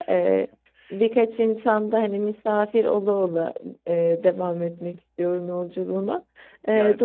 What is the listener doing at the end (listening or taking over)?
taking over